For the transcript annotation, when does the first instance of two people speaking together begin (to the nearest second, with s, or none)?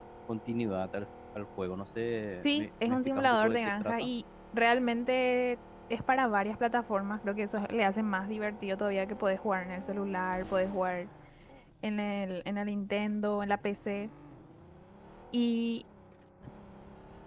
2 s